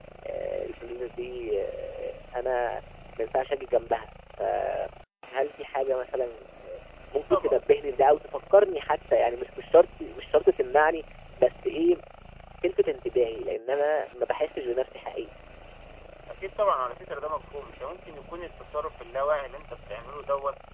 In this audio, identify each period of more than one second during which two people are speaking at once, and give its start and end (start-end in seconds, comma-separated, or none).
none